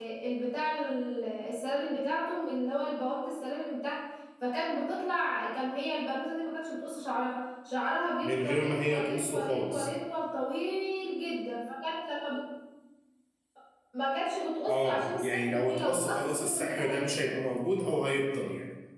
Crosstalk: present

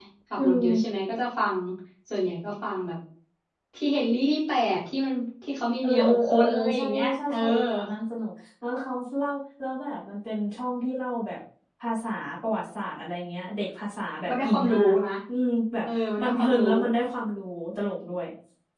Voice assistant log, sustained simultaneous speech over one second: present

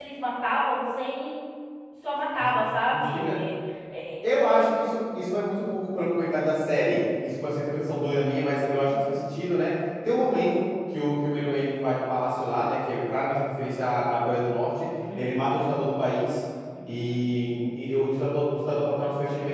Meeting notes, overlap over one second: none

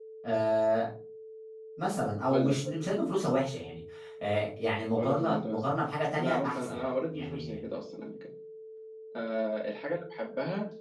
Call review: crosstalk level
present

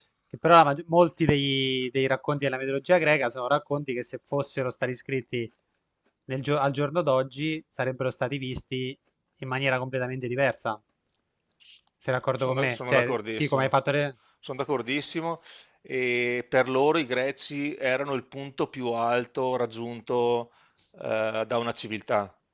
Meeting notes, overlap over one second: present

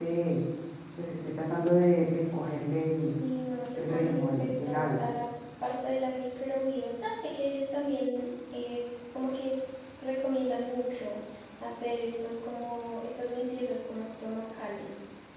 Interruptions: present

